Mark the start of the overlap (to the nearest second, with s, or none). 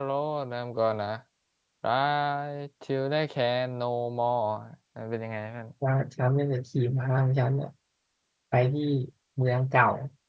none